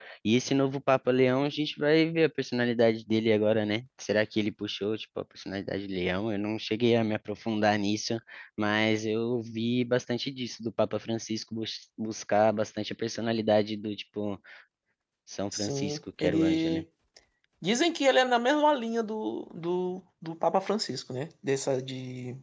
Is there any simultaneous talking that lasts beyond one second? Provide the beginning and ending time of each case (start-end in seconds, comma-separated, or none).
15.6-16.8